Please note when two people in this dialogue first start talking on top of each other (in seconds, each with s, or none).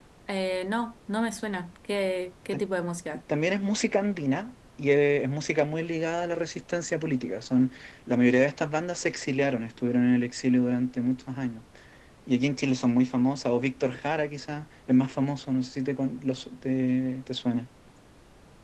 none